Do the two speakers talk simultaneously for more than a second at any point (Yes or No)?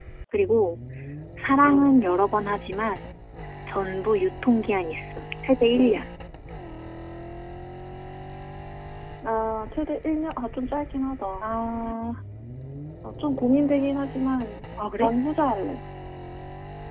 No